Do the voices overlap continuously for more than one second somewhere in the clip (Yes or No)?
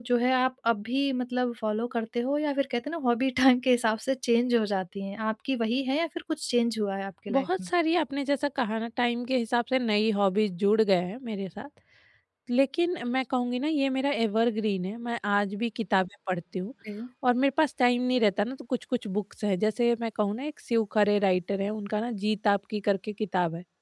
No